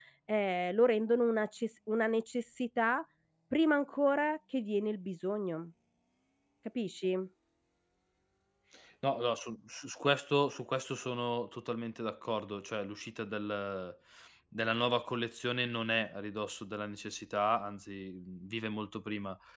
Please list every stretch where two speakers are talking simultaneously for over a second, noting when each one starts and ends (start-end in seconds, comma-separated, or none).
none